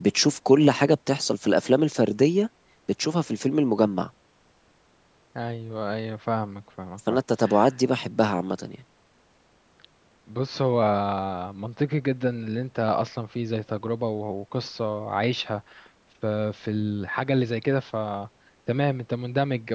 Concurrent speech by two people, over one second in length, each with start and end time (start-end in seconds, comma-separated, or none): none